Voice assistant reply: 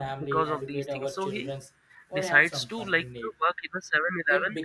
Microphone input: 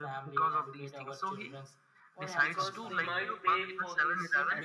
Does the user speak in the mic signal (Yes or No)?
Yes